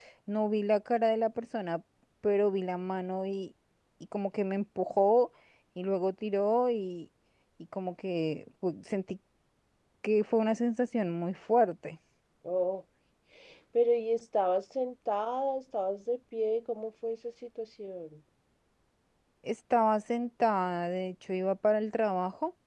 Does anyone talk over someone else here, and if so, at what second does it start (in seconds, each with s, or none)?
none